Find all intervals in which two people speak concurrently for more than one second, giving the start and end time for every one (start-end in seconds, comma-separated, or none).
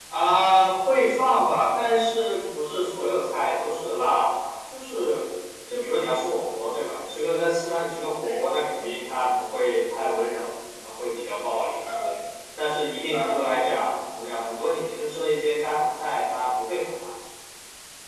none